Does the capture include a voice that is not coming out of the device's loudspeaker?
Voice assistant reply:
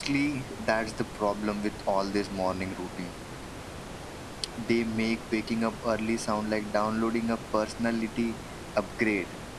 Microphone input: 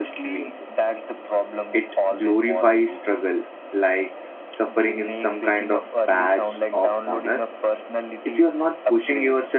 Yes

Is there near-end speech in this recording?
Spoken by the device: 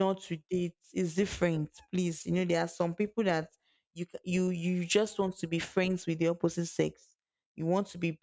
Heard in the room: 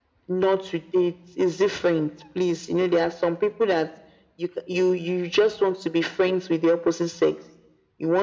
No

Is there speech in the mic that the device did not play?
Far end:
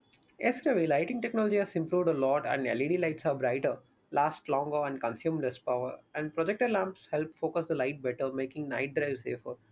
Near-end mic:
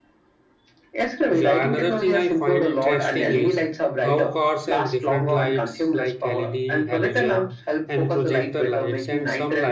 Yes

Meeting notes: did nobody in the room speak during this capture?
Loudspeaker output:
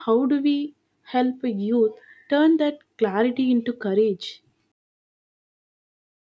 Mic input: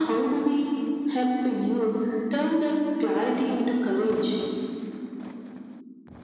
Yes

